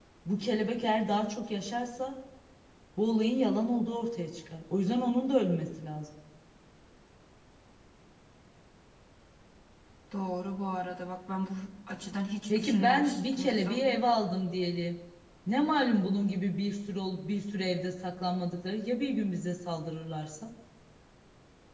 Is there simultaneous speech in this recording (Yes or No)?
Yes